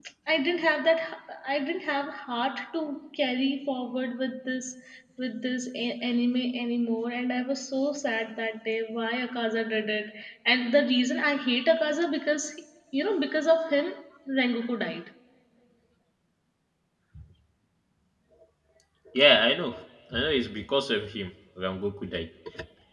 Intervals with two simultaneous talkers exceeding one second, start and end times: none

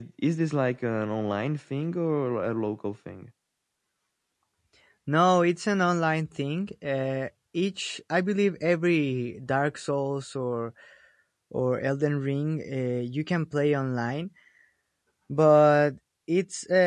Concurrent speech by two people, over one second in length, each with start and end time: none

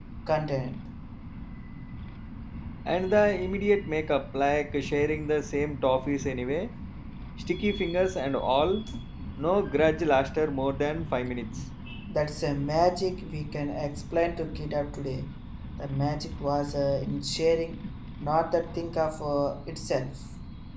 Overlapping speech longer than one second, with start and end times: none

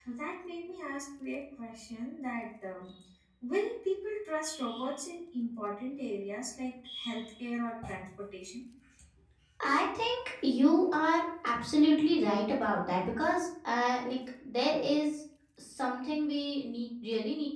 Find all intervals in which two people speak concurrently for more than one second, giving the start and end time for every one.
none

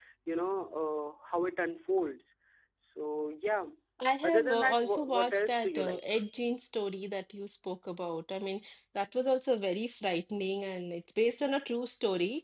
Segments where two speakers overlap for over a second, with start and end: 4.2-6.0

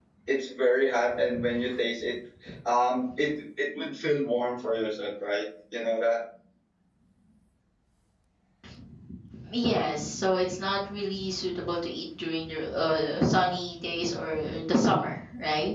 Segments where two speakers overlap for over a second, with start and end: none

